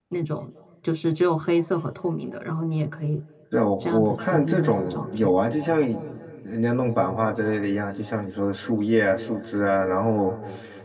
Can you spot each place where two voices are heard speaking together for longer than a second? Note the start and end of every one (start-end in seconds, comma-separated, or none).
3.8-5.3